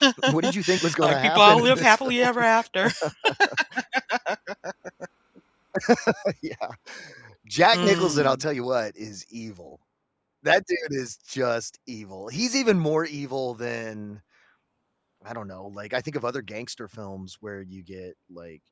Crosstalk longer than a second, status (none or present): present